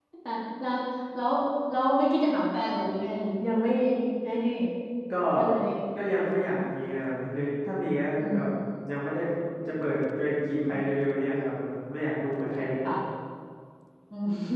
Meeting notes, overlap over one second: none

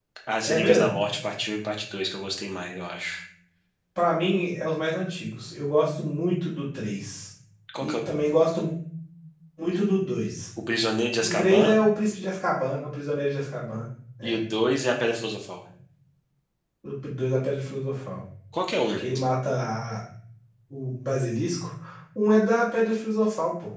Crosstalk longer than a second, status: none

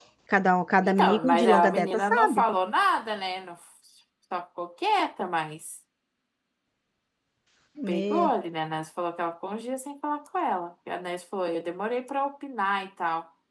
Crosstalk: present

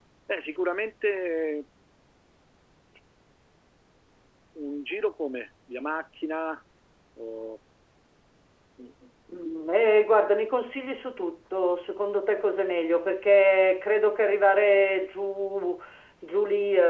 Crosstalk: none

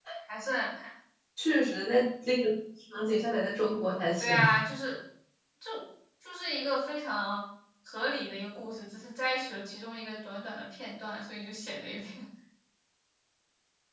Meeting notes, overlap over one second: none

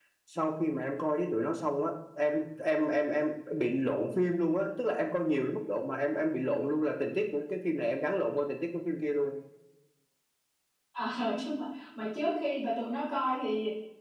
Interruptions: none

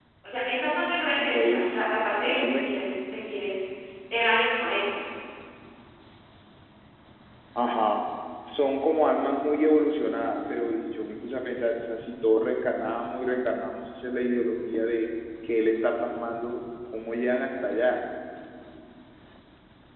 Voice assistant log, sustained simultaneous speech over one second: present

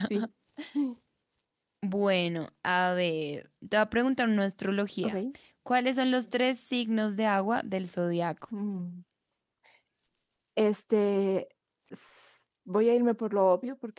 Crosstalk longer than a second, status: none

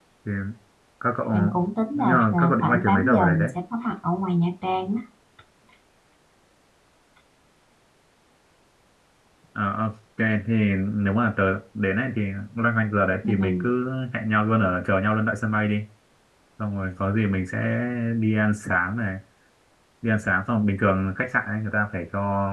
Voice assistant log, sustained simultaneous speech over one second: present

